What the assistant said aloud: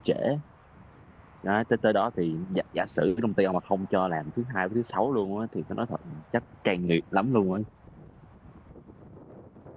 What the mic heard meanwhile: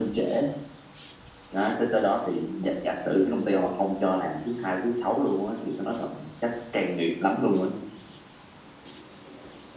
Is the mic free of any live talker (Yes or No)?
Yes